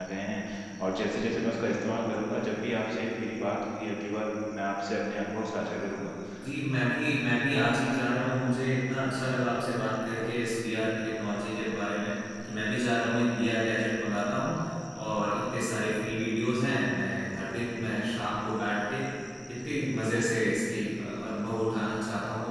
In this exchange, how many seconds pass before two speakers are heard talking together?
none

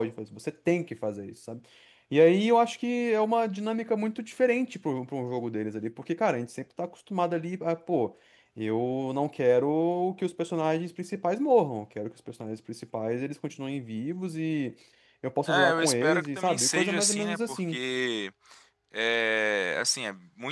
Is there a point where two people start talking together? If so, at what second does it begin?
15.5 s

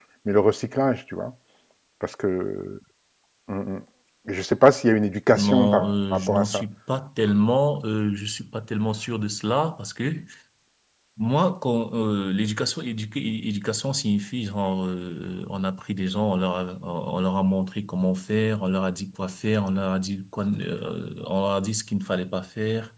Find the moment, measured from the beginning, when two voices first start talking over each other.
5.3 s

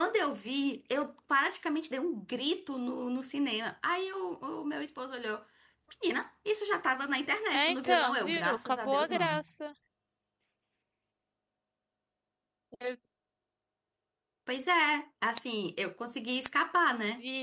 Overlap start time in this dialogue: 7.5 s

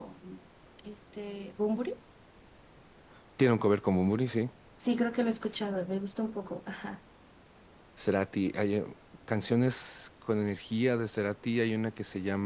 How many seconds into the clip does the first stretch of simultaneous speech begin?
none

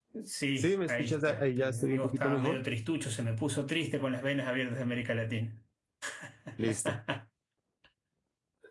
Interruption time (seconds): 0.6 s

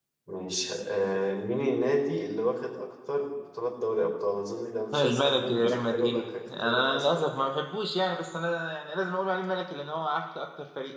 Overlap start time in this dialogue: 4.9 s

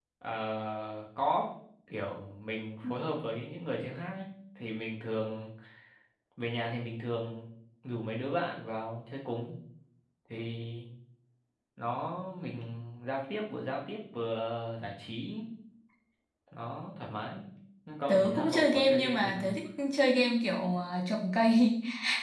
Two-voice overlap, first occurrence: 18.1 s

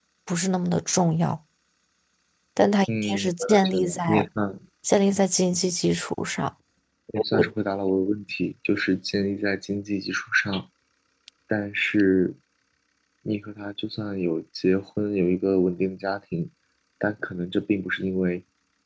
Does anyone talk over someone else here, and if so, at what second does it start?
3.0 s

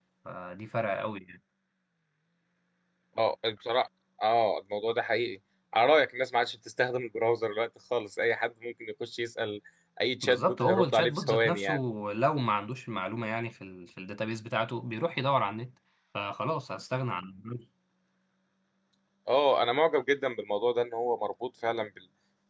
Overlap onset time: 10.2 s

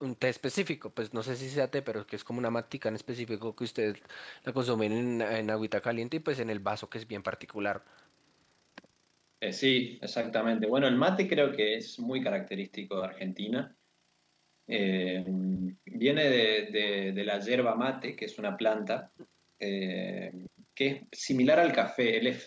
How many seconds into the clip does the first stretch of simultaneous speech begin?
none

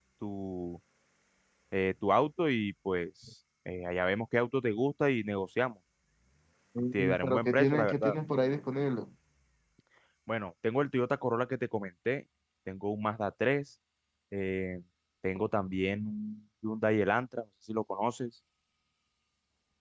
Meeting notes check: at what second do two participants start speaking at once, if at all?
6.9 s

